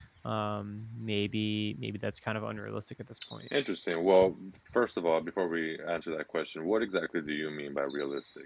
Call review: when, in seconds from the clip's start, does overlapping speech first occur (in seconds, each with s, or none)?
none